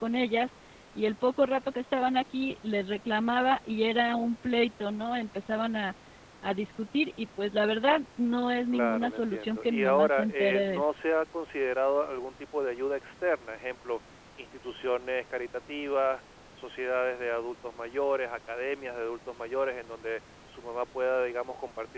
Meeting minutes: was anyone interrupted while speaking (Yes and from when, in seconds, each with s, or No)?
Yes, from 8.7 s